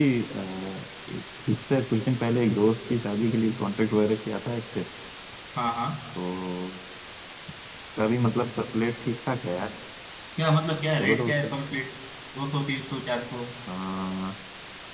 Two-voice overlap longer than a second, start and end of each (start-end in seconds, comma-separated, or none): none